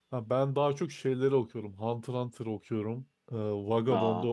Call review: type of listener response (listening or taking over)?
listening